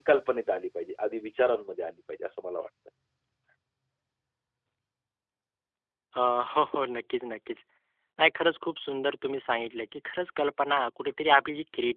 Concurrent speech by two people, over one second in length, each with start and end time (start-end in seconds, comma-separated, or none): none